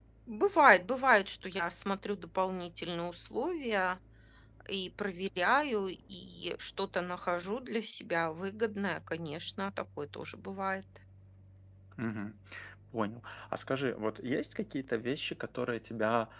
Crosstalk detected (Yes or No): No